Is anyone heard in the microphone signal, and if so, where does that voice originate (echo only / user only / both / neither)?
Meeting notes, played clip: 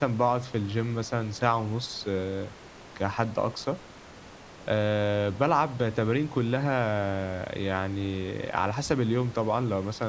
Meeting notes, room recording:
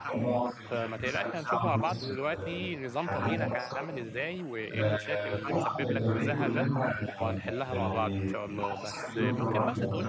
both